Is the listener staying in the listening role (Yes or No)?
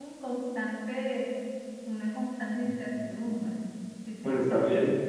No